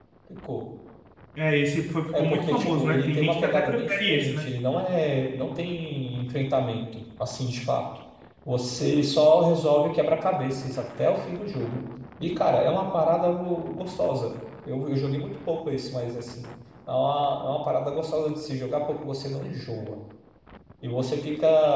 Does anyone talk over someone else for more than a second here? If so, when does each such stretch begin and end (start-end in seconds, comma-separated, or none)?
2.2-4.4